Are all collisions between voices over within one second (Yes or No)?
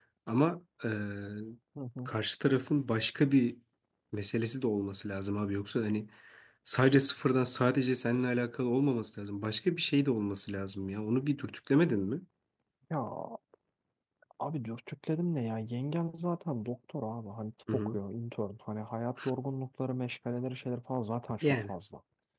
Yes